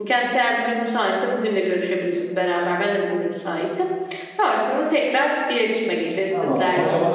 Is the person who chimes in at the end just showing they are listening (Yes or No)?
No